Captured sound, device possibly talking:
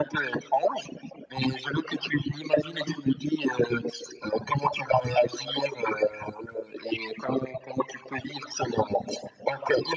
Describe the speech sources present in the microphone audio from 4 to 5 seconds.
echo only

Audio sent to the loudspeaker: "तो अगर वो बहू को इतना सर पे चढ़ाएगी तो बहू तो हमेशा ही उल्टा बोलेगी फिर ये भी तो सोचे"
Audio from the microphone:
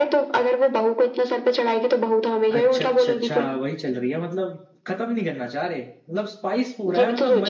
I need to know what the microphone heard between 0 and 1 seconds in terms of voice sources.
echo only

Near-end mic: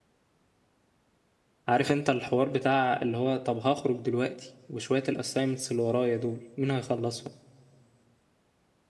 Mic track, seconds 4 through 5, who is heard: user only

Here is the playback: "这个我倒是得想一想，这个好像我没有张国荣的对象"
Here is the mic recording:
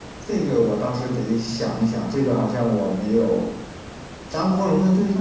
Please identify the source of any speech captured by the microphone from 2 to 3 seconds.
echo only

